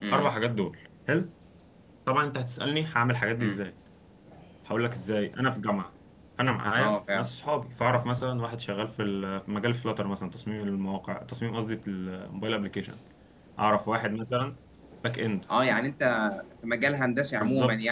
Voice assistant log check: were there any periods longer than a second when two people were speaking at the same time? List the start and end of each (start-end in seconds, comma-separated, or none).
none